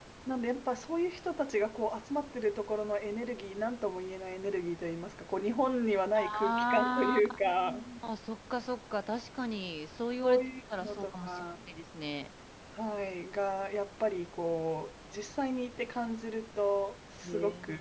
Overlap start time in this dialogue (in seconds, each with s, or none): 6.2 s